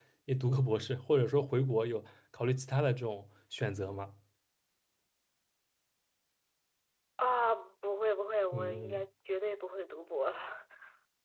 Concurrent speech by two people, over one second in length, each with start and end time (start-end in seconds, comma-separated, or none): none